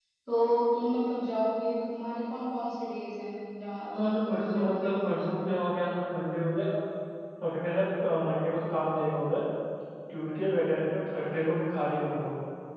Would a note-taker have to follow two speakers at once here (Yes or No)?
Yes